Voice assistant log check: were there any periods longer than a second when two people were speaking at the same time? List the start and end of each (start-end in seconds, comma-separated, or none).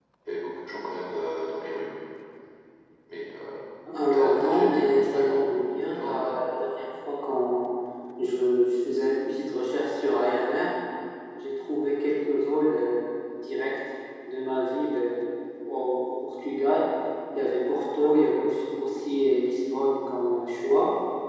4.1-5.6